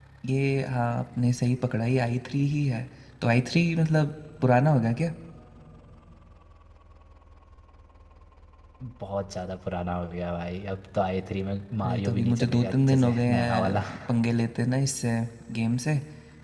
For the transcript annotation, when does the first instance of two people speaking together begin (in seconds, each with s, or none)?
11.8 s